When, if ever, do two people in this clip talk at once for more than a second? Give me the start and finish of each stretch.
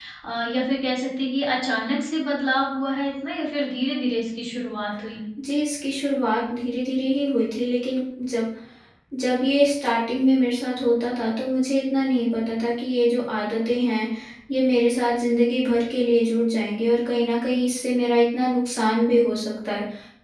none

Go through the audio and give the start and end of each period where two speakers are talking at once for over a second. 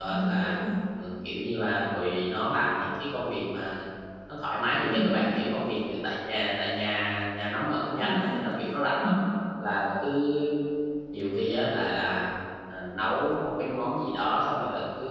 none

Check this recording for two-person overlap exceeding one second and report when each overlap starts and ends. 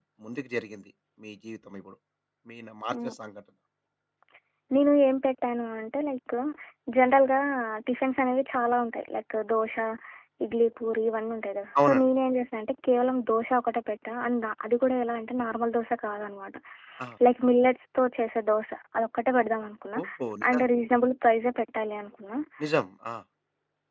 none

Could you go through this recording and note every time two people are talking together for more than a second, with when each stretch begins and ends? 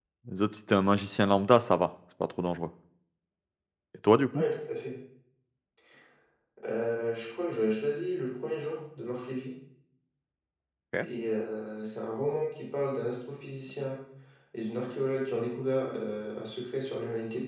none

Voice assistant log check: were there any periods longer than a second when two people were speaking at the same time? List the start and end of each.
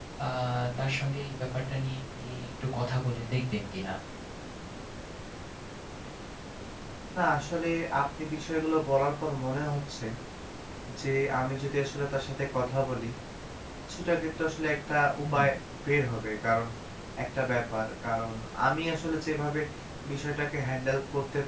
none

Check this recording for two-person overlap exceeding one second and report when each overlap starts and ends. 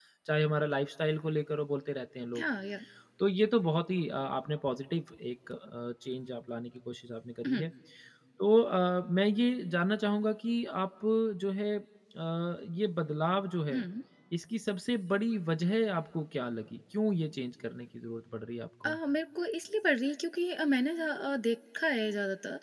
none

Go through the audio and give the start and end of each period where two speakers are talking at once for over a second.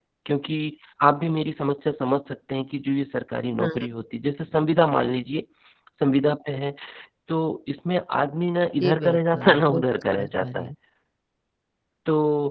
8.8-10.7

